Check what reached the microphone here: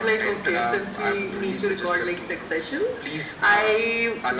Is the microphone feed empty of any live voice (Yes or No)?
Yes